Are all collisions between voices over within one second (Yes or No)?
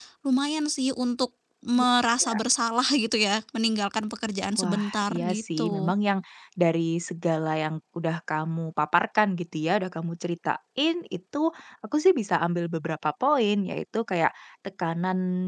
No